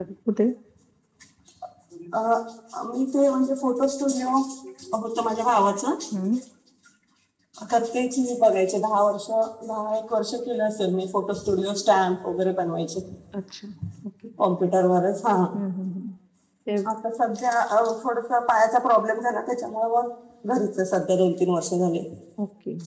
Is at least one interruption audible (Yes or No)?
No